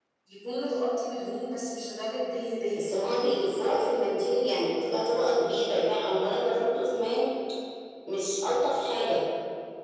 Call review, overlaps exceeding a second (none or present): none